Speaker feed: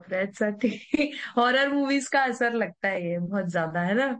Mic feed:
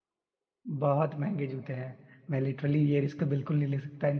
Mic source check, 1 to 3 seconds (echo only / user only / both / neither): user only